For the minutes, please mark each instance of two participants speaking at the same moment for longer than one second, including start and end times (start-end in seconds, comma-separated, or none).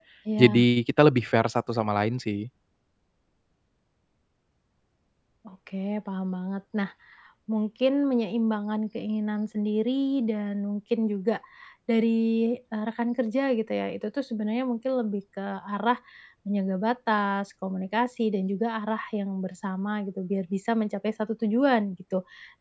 none